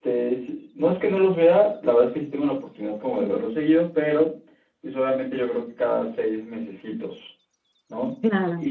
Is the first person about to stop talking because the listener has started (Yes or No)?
No